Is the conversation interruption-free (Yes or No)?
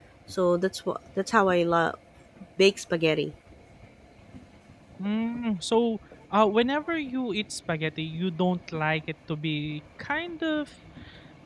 Yes